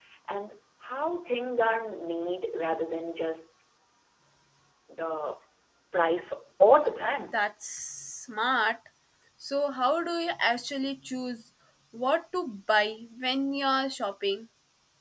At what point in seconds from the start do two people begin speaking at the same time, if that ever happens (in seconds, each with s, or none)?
none